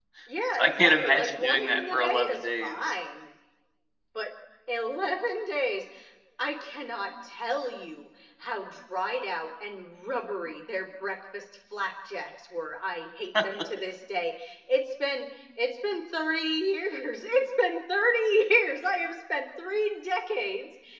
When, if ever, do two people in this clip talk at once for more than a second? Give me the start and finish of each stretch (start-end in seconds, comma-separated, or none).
0.5-2.8